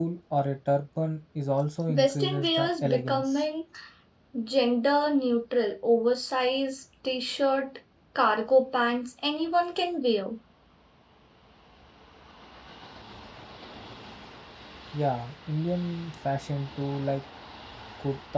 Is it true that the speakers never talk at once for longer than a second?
No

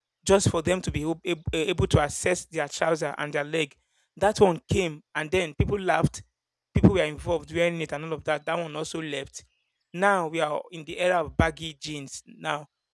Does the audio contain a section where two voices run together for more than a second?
No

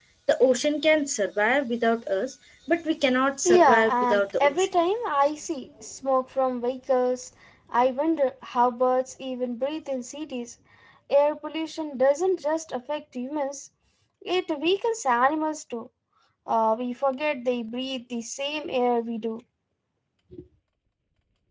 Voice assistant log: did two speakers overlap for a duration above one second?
Yes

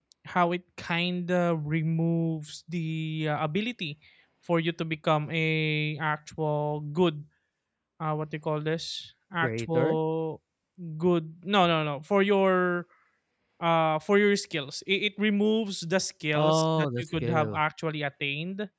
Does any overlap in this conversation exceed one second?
Yes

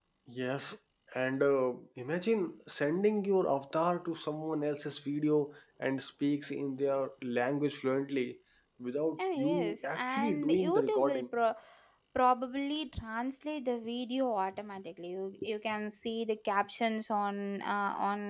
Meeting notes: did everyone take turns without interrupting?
No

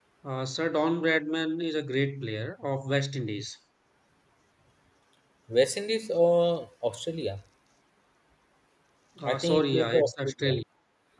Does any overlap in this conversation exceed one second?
Yes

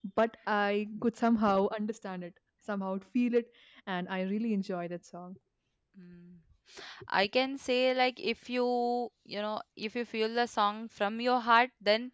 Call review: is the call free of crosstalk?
Yes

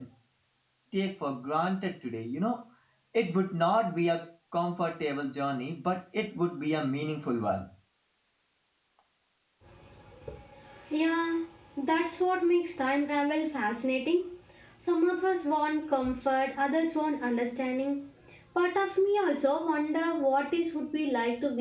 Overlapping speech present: No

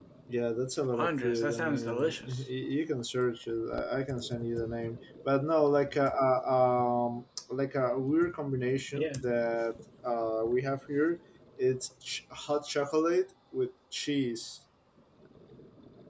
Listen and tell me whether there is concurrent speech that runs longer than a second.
Yes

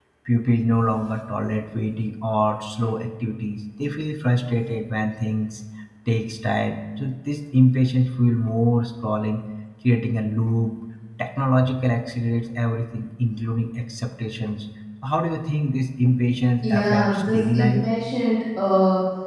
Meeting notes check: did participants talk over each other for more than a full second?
Yes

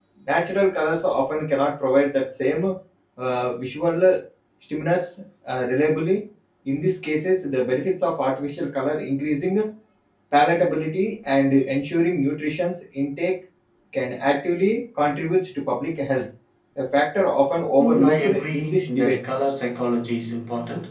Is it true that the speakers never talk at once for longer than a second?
No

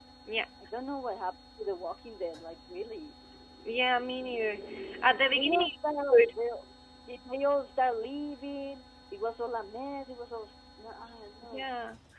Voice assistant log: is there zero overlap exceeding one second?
Yes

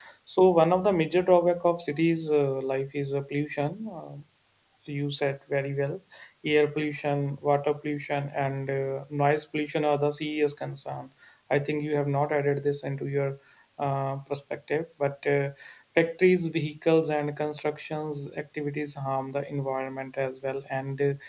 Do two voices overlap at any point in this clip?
No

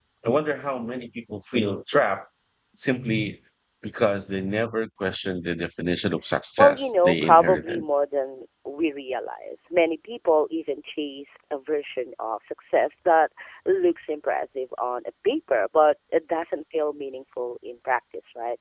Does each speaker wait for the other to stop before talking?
No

